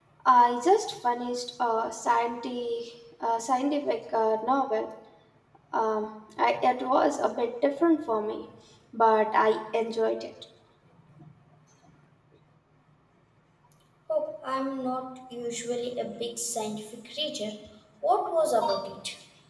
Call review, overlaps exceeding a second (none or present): none